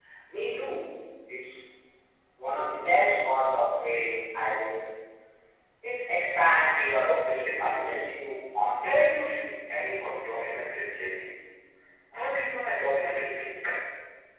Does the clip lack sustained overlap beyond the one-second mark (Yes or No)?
Yes